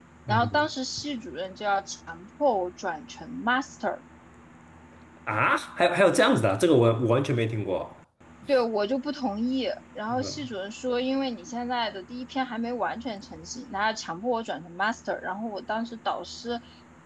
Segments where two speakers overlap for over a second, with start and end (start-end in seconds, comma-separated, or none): none